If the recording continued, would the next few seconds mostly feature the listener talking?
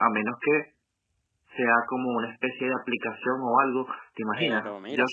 Yes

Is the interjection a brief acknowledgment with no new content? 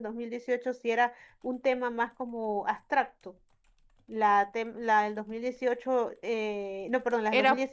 Yes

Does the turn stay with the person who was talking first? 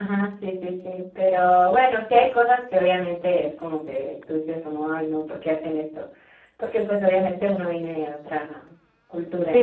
No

